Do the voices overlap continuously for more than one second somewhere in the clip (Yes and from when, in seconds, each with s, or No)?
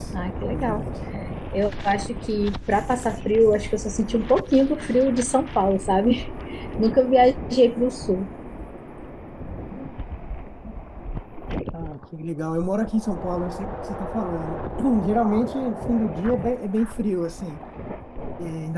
No